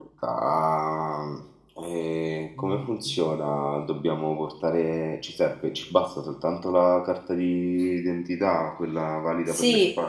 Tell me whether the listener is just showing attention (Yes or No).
No